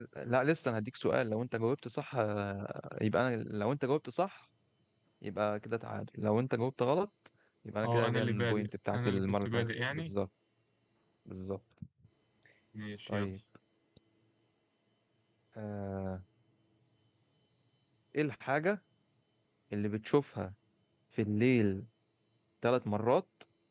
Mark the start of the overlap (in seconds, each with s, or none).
7.8 s